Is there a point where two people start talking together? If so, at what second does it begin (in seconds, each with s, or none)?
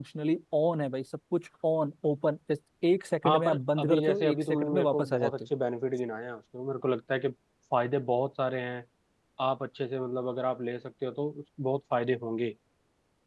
3.2 s